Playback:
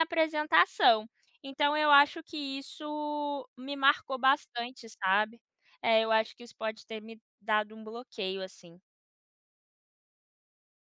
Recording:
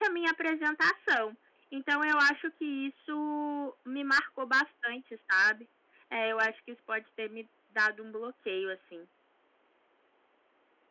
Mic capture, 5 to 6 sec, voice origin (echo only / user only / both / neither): echo only